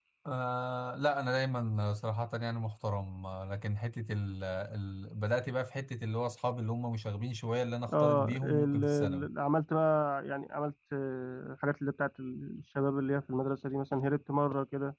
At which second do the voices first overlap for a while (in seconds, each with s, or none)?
7.9 s